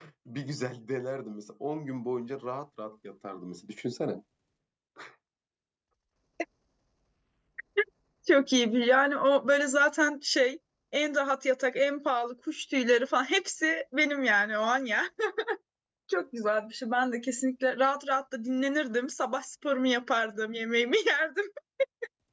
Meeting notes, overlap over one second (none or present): none